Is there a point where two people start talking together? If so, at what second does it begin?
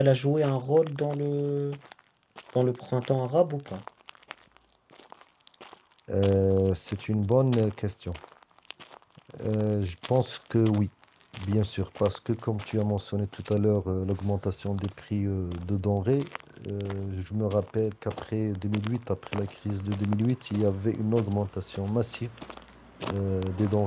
none

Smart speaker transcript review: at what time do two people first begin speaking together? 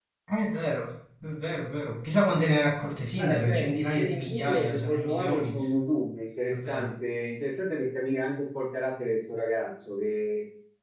3.1 s

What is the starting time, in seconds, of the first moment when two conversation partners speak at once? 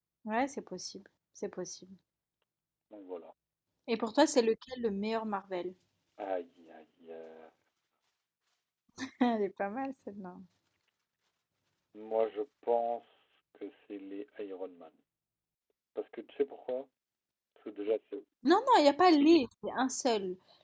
none

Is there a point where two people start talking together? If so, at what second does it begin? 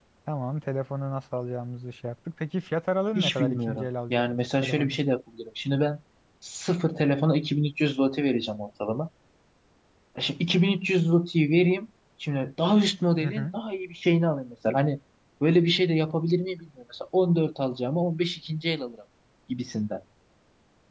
3.1 s

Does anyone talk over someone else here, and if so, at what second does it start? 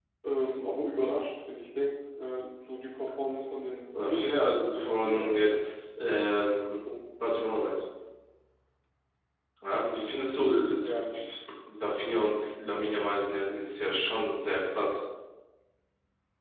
3.9 s

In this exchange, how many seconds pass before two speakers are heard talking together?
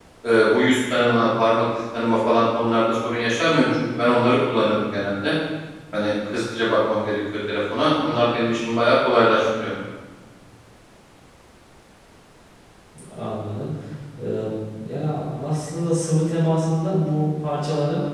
none

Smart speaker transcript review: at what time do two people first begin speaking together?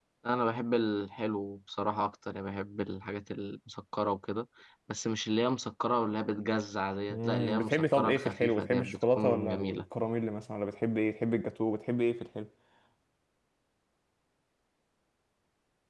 7.1 s

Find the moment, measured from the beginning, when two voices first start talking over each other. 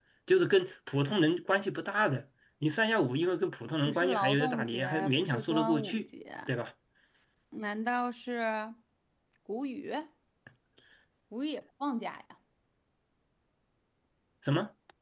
3.9 s

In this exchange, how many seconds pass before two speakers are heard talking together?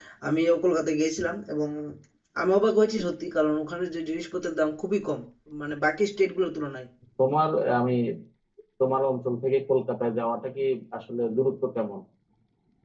none

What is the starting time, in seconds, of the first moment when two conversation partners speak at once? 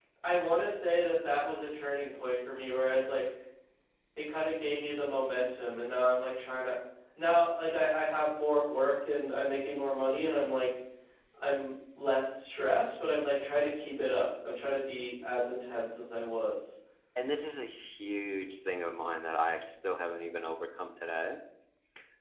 none

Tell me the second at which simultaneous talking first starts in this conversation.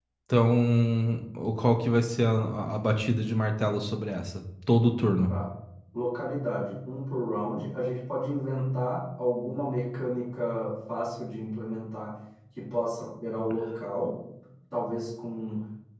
none

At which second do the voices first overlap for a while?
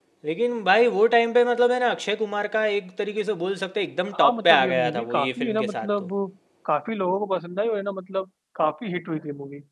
4.1 s

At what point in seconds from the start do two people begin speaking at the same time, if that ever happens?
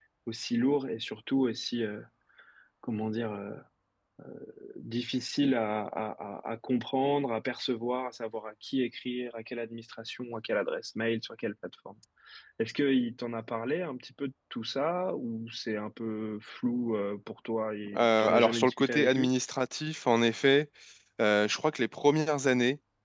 17.8 s

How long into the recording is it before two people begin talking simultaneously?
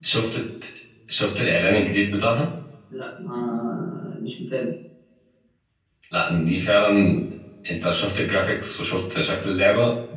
none

